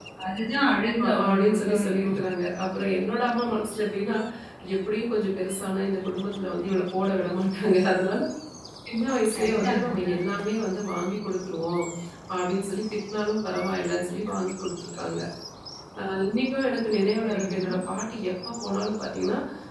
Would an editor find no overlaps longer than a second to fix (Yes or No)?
No